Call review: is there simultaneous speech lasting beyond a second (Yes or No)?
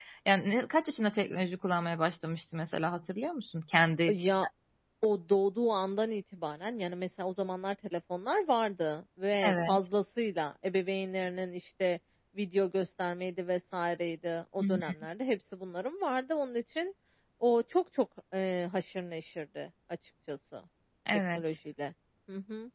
No